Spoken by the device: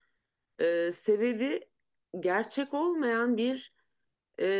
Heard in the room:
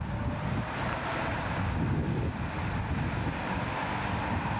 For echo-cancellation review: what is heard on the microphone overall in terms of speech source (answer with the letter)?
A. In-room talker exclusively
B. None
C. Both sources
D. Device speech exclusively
B